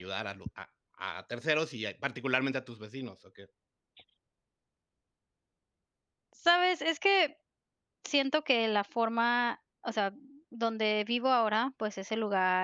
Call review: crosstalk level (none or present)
none